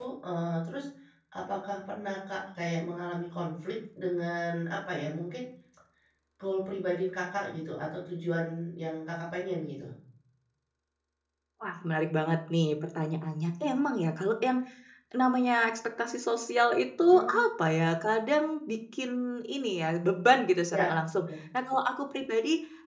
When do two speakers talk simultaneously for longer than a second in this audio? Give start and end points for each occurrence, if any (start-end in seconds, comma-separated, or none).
none